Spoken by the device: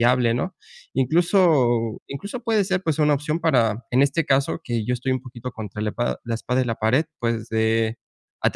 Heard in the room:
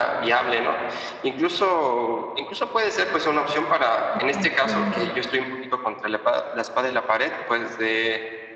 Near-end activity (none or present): present